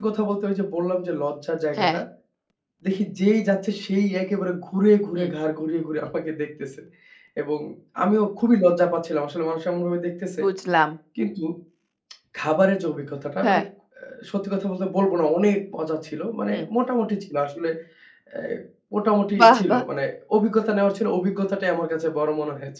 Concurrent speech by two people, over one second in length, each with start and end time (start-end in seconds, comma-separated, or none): none